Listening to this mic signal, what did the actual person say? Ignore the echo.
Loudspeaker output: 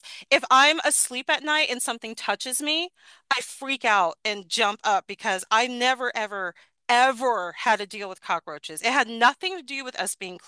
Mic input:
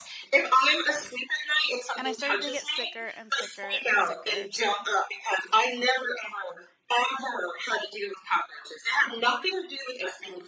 And I started to get sicker and sicker and sicker.

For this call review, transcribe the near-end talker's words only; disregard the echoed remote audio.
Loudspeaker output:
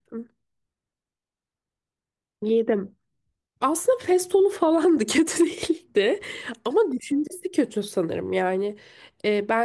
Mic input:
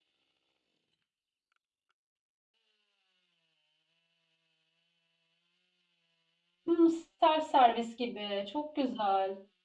Hmm, self servis gibi. Çok güzel.

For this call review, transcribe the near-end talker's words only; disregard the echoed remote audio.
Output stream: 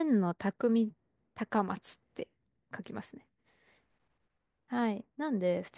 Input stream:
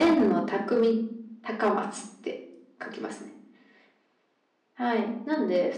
none

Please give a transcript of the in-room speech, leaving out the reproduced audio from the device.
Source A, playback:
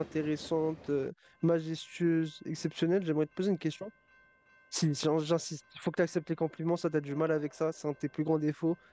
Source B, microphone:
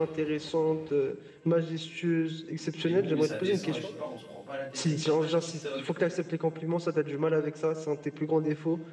Et boum, et ça descend, et je sais pas, on se prend pas la tête avec, il y a pas de TikTok,

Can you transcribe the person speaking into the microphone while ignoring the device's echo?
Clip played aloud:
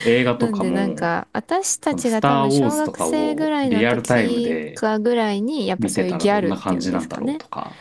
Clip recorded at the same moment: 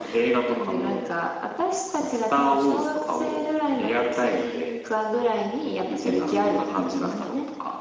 ええー古い。

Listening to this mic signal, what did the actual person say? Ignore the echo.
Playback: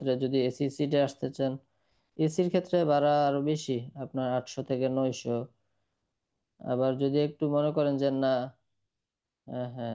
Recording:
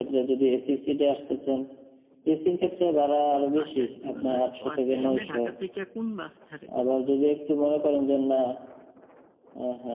বাসে আসতে হবে না ও আচ্ছা এমনি ঢাকা থেকে কোন বাস ছাড়ে

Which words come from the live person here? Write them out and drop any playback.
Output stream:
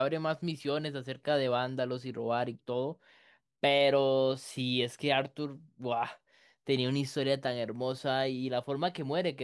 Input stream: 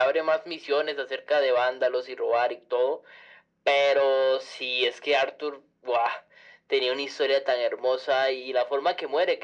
none

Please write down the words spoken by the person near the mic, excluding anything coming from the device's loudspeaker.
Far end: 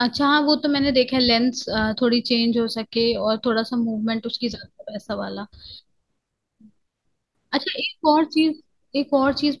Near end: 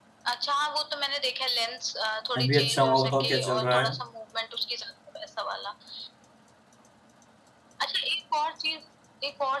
मैं भी अच्छा हूँ आप बताओ क्या चल रहा है

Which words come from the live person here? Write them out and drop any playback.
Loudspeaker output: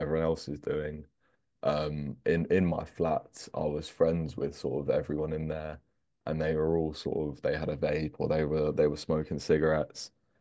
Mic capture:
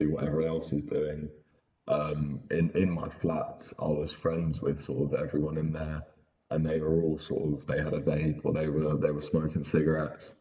none

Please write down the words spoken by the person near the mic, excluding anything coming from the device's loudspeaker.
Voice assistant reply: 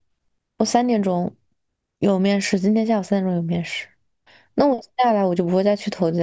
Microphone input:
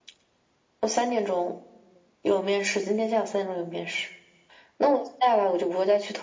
none

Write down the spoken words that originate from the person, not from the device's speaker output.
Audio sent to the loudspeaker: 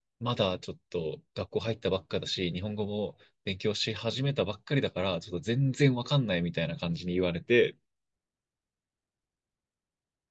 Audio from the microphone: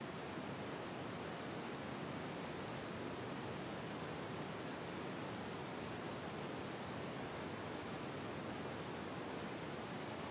none

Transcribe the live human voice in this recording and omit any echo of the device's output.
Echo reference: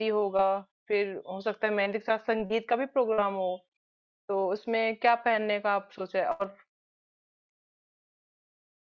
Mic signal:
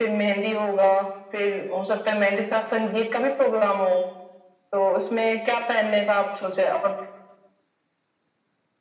none

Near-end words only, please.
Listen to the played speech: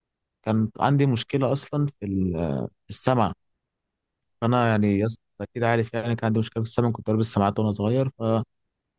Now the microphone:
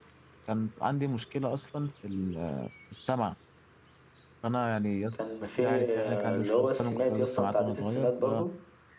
كان في آه، اللي هو السمات يا اسطى أنت عديت السمات برضو

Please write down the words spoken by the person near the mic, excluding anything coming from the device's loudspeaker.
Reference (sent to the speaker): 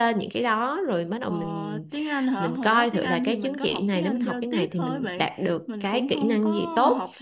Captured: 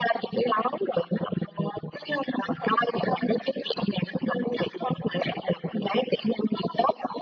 none

